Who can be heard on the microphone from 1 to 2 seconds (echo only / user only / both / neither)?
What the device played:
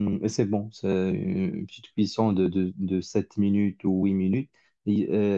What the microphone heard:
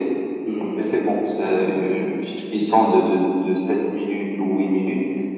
echo only